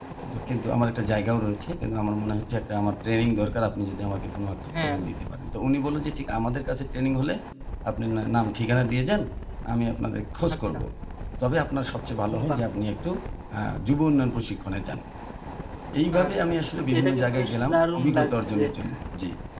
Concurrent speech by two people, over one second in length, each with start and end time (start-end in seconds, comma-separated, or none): 16.2-18.6